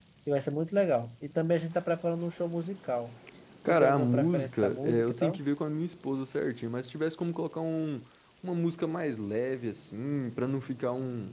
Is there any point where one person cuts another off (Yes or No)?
Yes